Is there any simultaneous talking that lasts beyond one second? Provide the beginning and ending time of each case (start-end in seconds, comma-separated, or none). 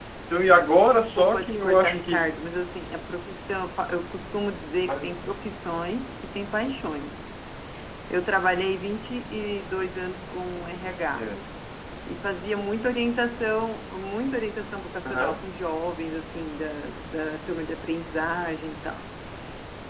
0.8-2.3